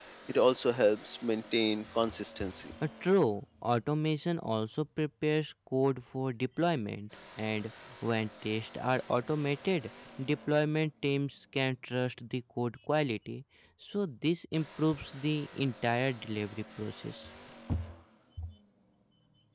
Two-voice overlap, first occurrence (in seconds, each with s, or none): none